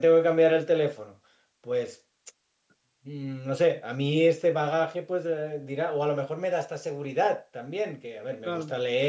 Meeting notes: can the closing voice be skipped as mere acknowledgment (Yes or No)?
Yes